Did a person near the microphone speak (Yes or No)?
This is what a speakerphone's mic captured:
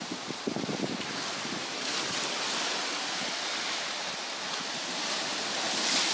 No